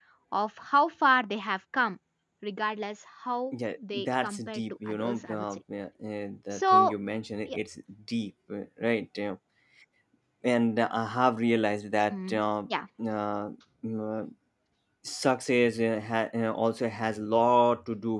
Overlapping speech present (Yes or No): Yes